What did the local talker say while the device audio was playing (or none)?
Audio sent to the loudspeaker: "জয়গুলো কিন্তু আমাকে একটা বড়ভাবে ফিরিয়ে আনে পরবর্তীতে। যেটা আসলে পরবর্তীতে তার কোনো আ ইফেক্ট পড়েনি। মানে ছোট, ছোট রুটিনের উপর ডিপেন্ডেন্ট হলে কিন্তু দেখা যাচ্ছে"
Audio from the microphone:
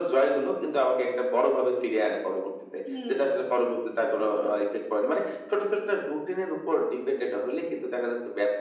হুম, হুম ঠিক তো।